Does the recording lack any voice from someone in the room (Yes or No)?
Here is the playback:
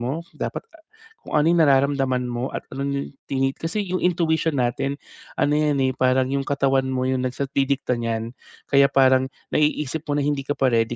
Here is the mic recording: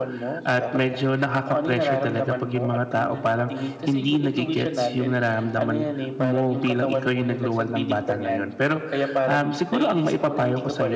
No